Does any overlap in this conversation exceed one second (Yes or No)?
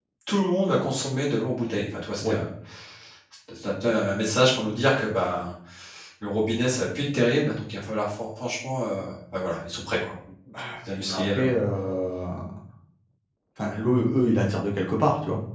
No